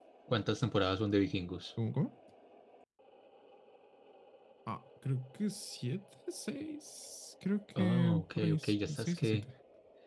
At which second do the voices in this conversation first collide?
7.8 s

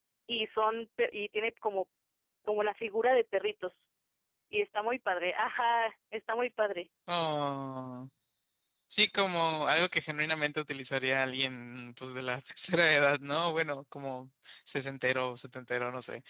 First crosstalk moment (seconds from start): none

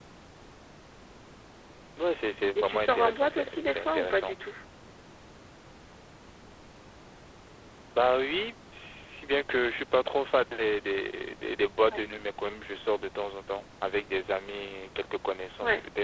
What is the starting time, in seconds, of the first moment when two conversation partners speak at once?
2.5 s

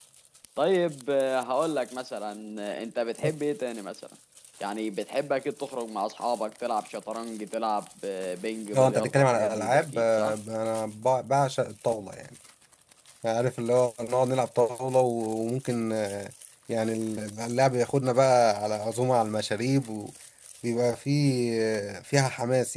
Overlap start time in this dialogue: 8.7 s

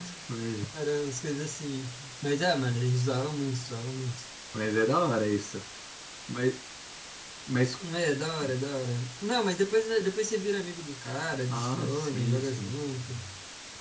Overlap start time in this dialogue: 11.5 s

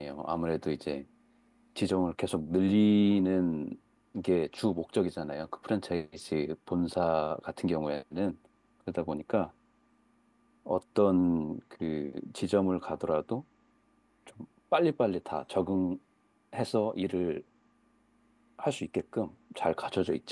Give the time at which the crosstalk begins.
none

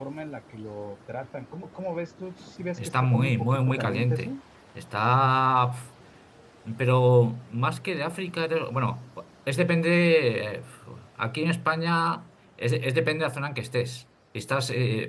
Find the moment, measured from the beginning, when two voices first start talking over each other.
2.6 s

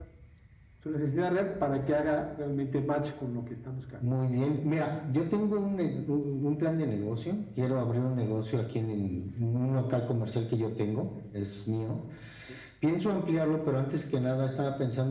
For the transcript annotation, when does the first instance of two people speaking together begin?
none

